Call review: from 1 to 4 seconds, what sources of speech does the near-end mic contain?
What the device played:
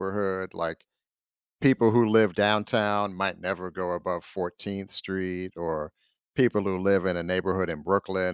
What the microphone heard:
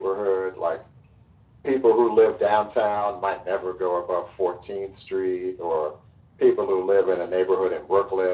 echo only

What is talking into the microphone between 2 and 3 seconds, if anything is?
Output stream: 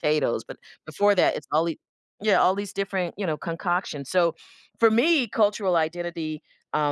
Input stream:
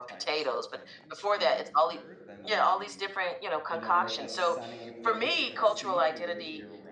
both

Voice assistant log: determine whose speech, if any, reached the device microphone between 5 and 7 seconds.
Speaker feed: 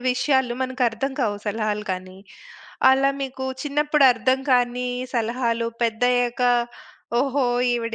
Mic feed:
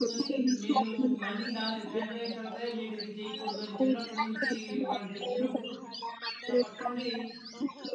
both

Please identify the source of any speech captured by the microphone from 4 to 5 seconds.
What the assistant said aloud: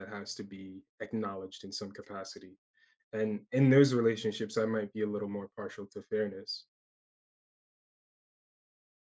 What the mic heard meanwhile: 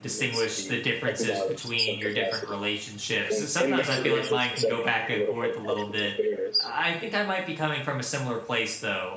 both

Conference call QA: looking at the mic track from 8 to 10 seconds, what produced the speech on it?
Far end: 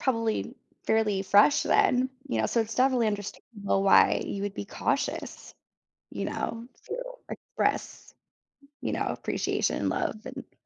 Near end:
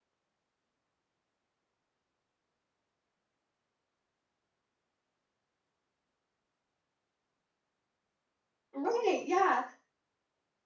user only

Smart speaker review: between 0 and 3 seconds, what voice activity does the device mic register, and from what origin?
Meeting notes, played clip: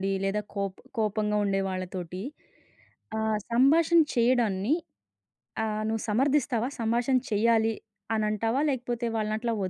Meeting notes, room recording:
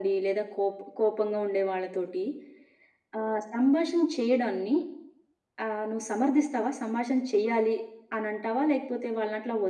echo only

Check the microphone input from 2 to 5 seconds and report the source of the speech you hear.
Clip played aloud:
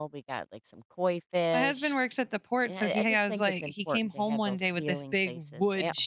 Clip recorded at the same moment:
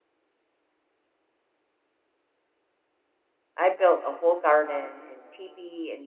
user only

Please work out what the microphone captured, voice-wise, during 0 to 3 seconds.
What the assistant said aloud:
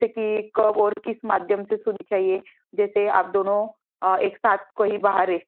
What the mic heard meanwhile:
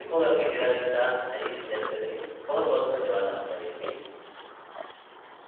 user only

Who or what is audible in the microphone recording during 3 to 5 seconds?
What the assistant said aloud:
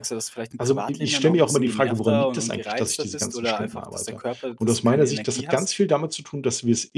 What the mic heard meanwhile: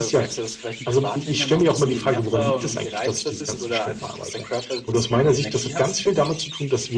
echo only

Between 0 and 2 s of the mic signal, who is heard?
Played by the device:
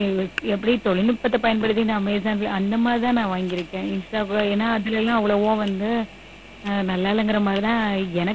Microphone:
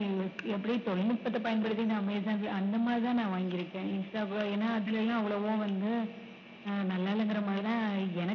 echo only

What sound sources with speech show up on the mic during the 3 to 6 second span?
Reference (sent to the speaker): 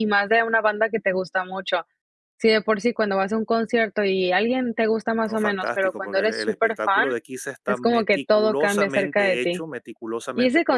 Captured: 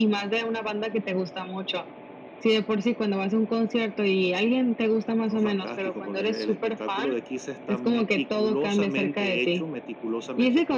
echo only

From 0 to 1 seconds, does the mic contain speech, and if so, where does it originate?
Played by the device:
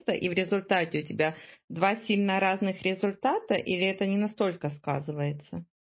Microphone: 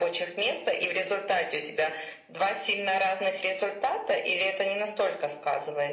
echo only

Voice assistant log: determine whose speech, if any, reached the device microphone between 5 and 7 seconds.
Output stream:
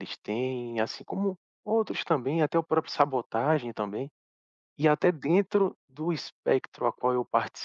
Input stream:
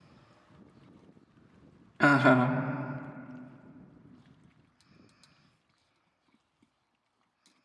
neither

